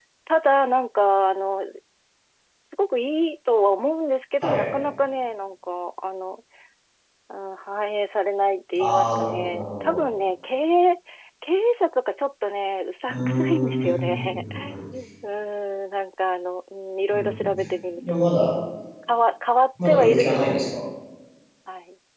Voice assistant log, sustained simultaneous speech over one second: present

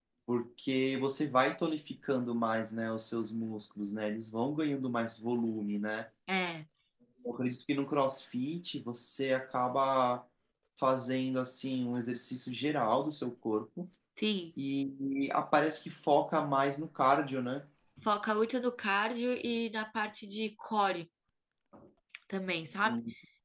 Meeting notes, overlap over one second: none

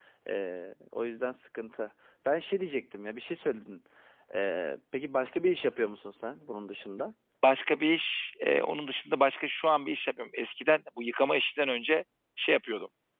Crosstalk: none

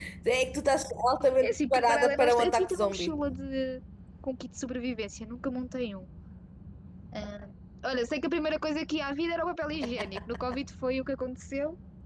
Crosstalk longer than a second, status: present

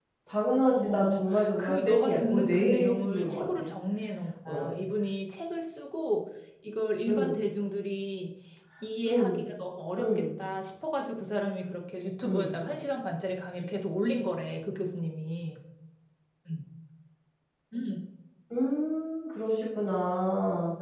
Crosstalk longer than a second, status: present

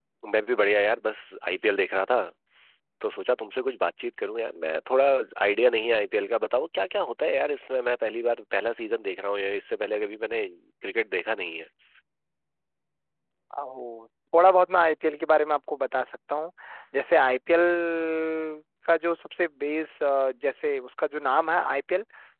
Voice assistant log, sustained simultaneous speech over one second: none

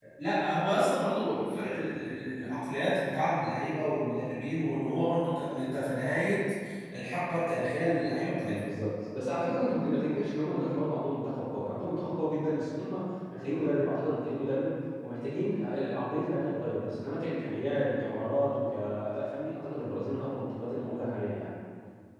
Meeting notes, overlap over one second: none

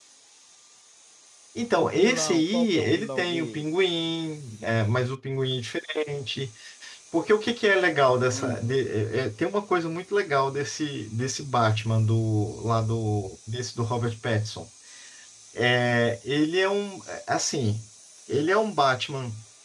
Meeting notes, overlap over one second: present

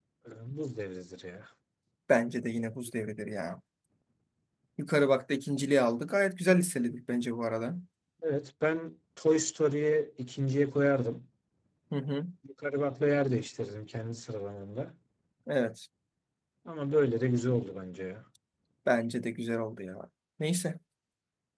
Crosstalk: none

